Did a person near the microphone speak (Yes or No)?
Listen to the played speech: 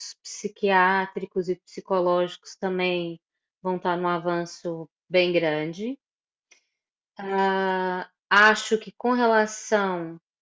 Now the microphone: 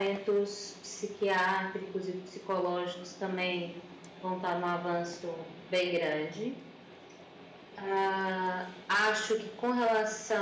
No